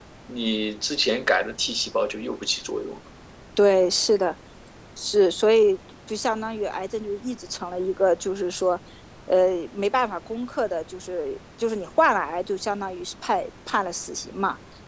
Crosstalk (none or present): none